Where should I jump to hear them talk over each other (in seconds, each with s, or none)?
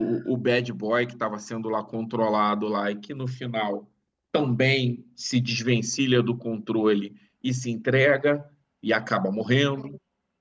none